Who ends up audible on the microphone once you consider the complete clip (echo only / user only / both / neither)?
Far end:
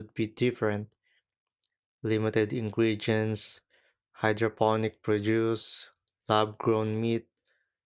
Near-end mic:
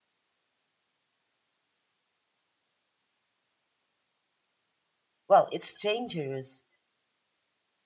user only